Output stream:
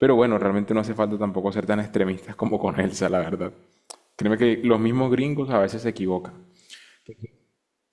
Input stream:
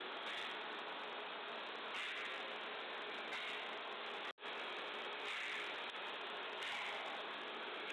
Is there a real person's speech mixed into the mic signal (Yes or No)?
No